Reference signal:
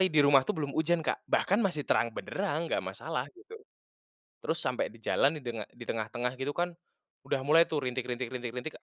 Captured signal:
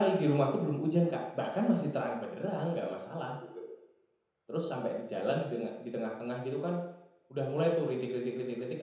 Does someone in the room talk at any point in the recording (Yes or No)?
No